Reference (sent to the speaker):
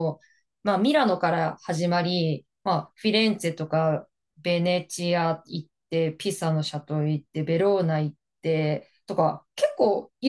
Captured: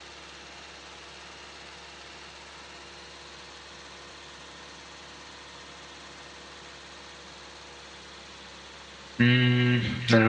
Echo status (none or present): none